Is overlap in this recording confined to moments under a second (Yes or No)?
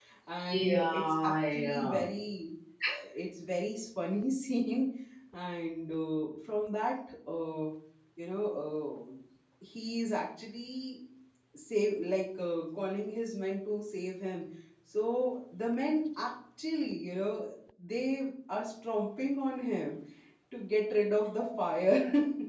No